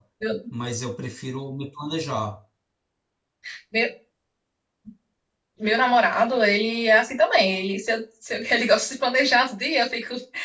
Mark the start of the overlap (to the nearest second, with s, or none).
none